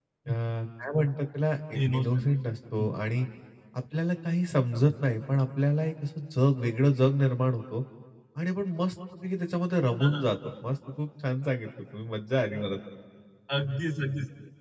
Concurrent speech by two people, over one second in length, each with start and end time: none

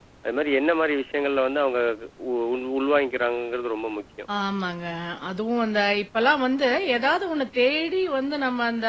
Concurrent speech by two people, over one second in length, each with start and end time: none

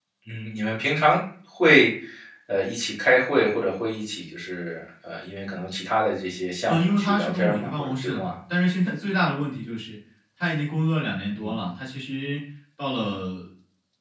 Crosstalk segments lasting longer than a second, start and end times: 6.7-8.3

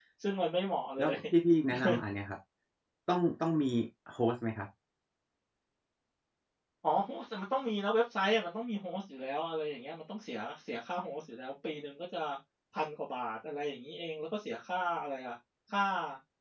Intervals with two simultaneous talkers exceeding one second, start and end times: none

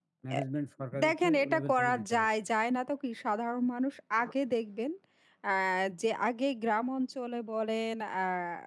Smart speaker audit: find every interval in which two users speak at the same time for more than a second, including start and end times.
1.0-2.3

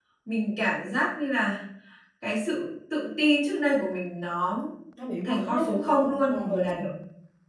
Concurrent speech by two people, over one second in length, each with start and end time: 5.2-6.8

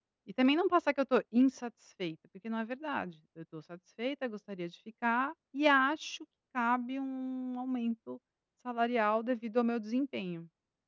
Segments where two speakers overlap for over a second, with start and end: none

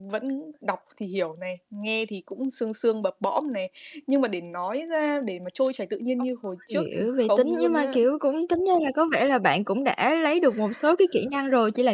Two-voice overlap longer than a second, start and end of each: 6.7-8.0

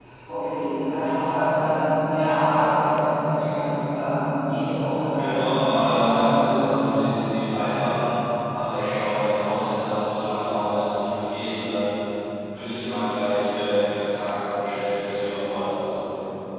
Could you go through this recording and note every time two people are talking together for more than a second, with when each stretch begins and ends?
5.2-7.1

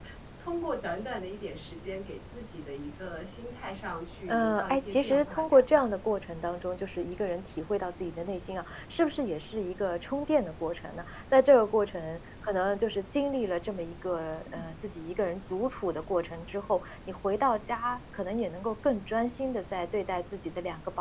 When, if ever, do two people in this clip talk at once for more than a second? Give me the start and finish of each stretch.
4.3-5.9

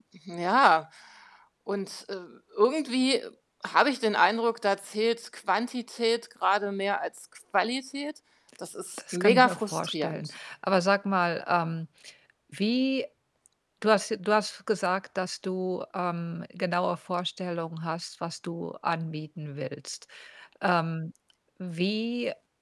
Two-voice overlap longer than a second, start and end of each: 9.0-10.3

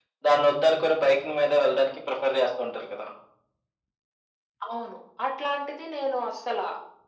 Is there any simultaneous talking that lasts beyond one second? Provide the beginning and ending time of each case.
none

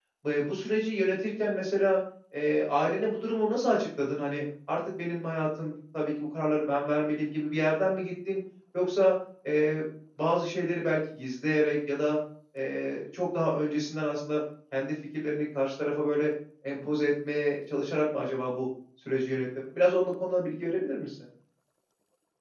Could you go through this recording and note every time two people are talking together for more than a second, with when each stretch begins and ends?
none

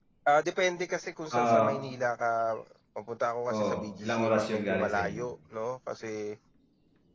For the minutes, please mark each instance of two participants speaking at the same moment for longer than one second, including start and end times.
3.5-5.2

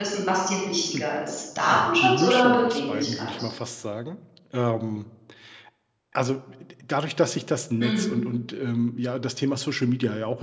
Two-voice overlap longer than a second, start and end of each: 1.7-3.3

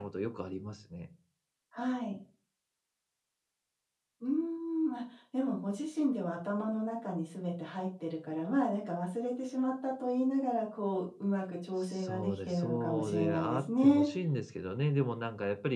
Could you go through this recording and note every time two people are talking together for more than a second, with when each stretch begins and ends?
11.8-14.1

